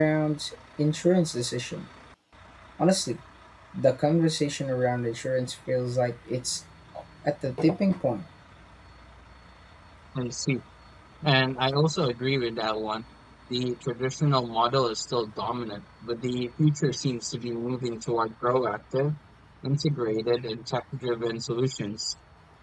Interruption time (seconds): none

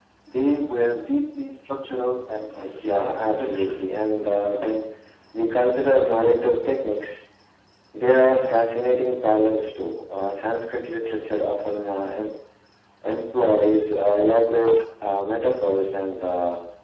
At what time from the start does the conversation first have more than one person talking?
2.6 s

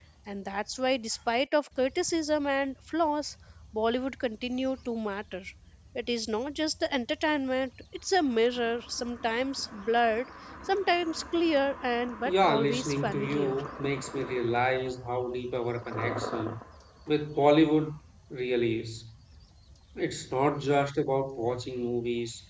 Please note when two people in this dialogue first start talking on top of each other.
12.2 s

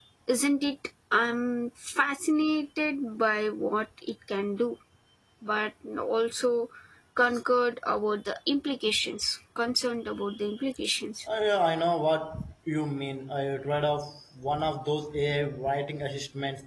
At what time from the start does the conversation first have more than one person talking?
none

